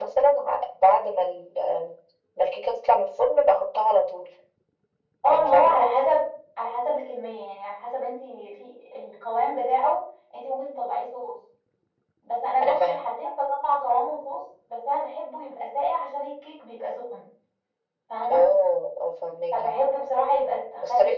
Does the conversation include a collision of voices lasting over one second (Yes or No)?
No